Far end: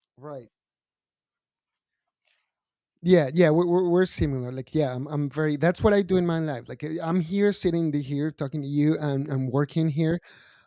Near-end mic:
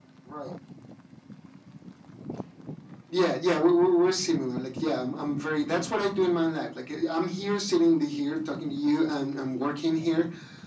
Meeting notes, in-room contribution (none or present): none